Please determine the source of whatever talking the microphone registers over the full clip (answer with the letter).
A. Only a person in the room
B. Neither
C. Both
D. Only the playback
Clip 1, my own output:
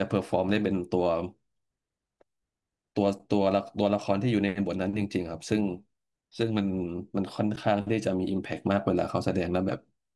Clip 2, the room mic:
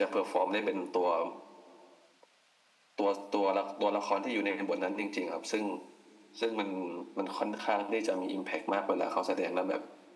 D